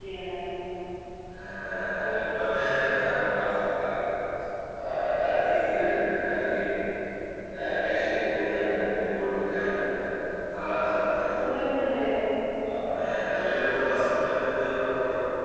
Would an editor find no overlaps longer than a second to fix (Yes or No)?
Yes